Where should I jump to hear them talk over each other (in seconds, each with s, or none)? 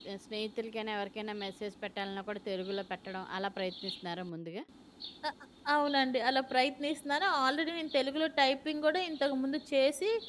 none